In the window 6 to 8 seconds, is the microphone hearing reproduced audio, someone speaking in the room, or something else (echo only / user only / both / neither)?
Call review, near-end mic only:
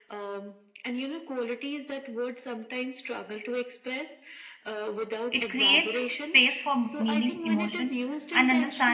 both